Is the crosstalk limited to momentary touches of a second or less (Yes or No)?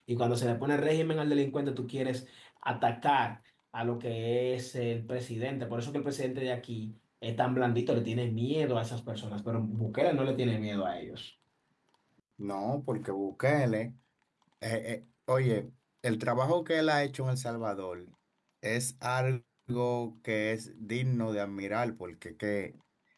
Yes